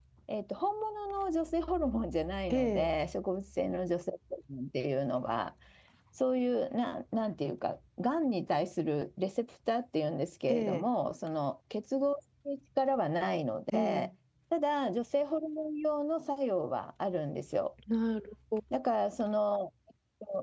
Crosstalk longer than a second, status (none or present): none